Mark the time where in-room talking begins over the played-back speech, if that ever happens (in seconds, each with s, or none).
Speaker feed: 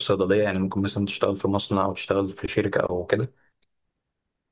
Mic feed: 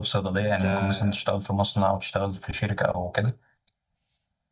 0.5 s